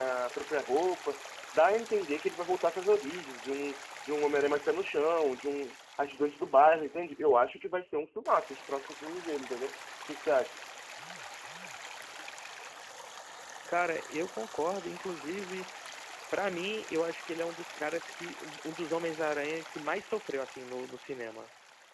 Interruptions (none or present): none